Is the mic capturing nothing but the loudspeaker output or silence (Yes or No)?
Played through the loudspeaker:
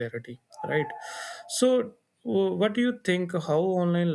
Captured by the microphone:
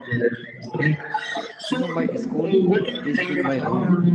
No